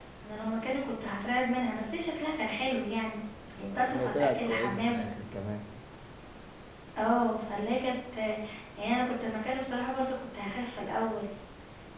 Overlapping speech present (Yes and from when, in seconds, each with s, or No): Yes, from 3.6 s